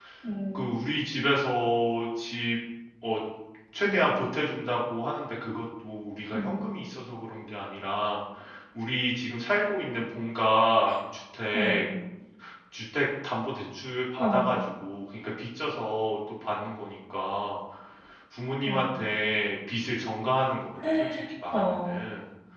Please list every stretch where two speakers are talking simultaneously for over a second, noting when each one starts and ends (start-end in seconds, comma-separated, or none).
none